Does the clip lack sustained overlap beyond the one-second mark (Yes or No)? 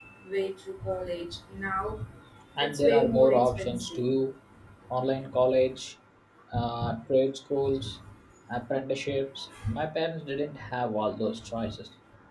No